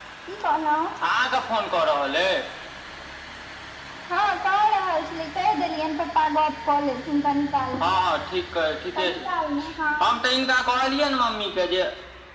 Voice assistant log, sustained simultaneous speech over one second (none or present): none